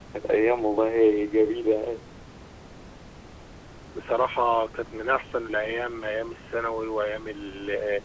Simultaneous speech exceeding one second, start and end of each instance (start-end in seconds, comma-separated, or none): none